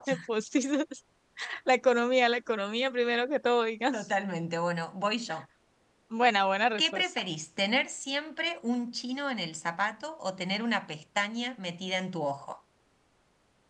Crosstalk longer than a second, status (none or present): none